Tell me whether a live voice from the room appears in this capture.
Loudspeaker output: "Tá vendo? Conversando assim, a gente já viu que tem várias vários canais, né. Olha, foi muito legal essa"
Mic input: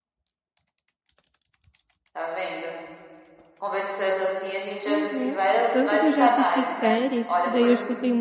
Yes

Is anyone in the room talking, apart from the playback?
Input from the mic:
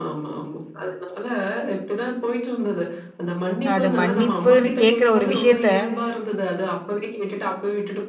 Yes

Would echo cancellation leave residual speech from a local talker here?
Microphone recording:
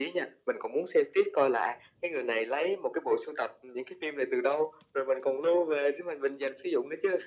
No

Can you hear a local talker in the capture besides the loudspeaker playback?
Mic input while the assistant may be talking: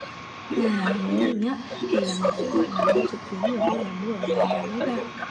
Yes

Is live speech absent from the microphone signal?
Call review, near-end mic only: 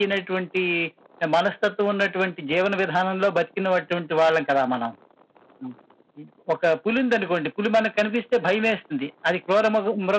Yes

